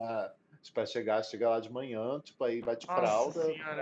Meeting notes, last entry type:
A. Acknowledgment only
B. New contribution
A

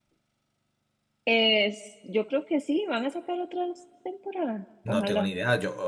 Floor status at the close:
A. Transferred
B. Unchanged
A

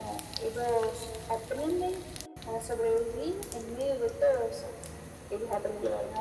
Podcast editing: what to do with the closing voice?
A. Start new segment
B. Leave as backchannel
B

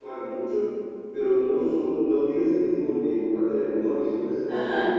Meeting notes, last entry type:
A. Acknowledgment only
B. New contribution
B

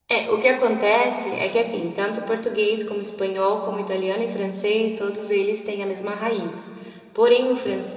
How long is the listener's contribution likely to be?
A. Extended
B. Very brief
B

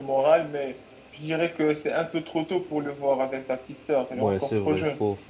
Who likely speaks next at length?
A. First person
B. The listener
B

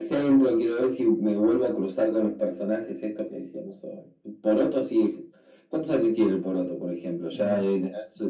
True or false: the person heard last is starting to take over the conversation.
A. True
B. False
B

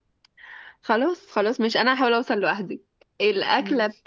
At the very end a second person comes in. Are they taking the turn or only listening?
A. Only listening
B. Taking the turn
A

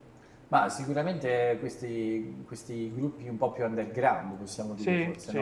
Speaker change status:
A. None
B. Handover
A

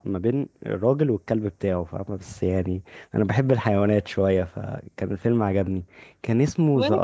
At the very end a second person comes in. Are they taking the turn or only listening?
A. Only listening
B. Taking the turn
A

